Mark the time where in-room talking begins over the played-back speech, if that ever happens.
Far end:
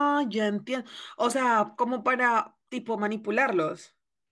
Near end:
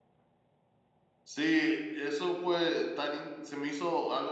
1.2 s

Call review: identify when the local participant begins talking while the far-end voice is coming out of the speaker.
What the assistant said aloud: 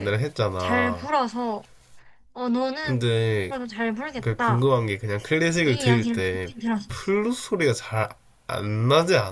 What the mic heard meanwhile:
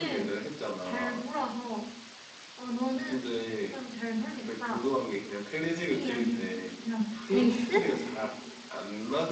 7.3 s

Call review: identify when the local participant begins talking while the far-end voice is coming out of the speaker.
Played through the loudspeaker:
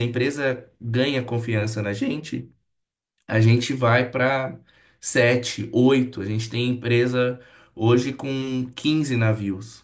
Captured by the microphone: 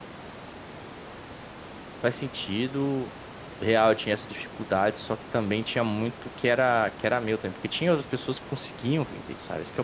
2.0 s

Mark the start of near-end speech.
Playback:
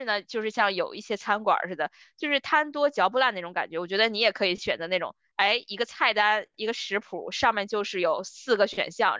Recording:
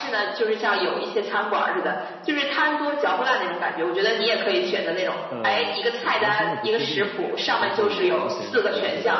5.3 s

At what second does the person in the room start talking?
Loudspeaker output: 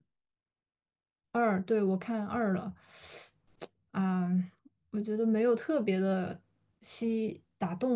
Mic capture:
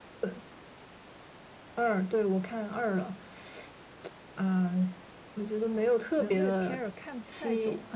6.2 s

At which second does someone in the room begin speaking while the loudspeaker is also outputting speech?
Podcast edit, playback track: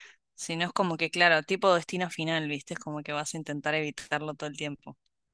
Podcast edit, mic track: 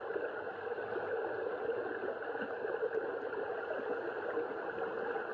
none

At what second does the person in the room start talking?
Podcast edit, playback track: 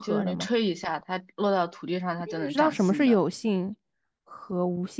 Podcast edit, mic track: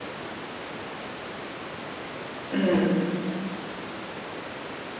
2.5 s

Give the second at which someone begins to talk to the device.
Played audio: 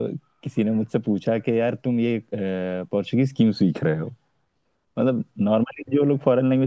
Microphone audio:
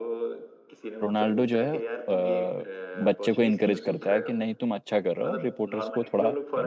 1.0 s

